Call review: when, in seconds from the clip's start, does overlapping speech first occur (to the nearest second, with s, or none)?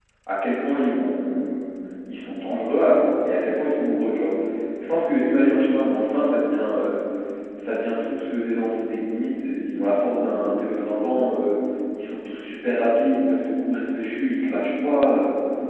none